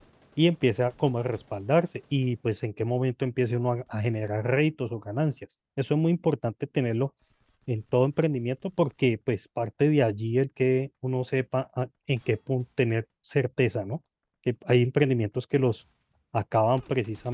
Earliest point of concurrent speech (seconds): none

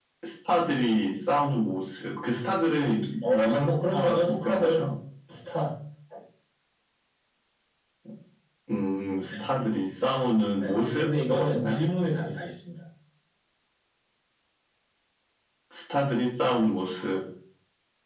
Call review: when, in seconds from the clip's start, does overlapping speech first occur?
3.3 s

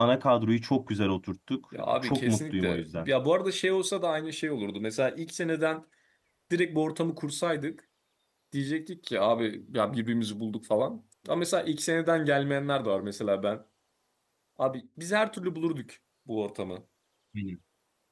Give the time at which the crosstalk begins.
1.7 s

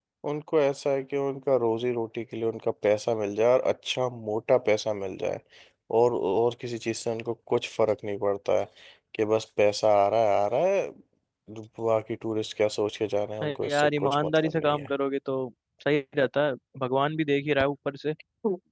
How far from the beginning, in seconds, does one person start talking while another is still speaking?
13.4 s

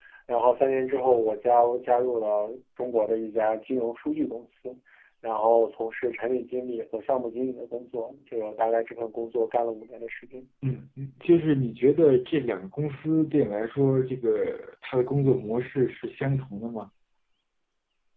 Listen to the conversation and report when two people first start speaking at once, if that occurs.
none

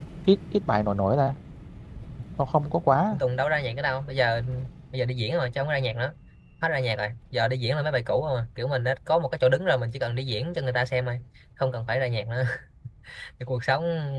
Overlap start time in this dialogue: none

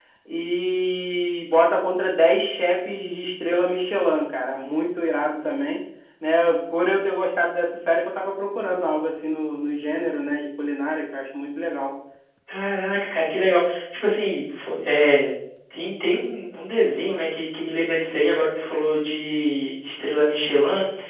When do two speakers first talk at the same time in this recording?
none

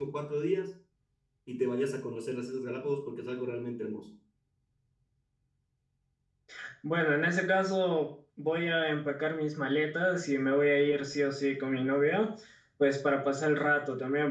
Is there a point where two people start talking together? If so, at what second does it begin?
none

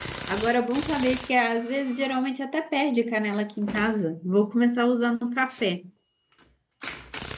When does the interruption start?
none

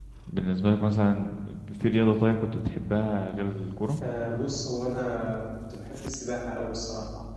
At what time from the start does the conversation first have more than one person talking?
none

